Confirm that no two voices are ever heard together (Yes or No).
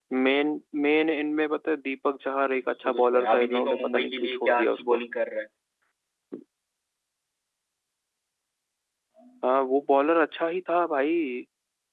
No